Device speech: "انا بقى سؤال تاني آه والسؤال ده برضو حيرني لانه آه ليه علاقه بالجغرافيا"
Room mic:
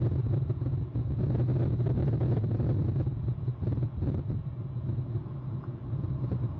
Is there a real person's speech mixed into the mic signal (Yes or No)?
No